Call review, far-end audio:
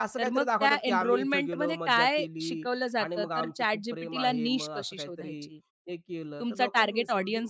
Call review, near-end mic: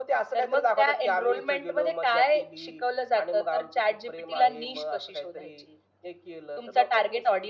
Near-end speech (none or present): none